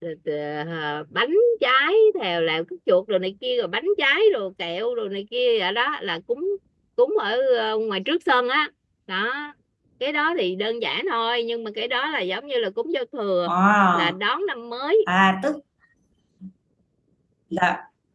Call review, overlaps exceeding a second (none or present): none